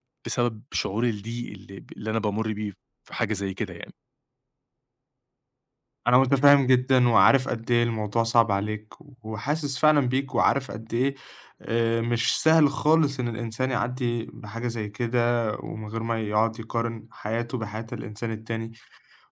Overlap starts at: none

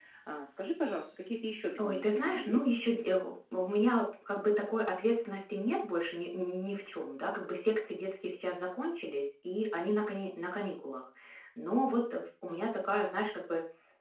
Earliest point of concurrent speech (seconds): 1.8 s

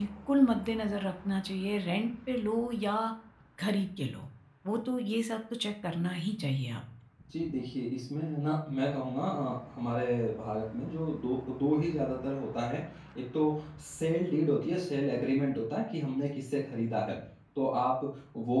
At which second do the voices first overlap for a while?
none

